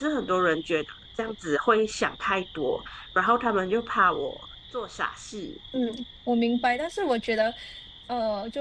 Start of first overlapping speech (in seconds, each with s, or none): none